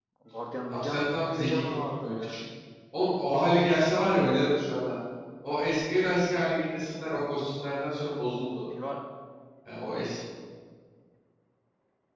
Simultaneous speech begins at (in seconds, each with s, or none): 0.7 s